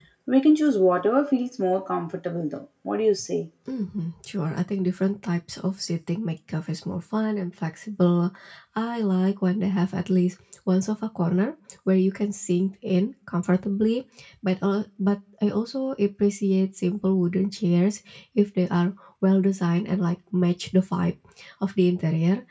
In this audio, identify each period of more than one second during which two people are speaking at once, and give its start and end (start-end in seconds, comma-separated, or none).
none